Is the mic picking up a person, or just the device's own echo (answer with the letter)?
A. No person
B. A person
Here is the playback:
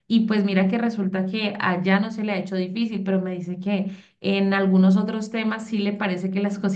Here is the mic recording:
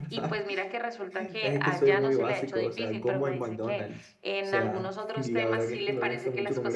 B